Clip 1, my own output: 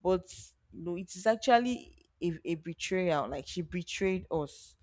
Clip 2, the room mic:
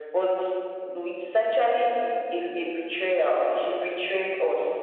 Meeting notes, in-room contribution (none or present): none